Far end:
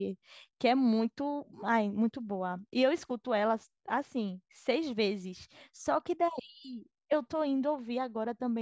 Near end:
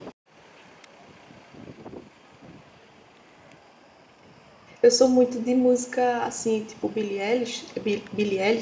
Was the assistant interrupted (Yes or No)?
Yes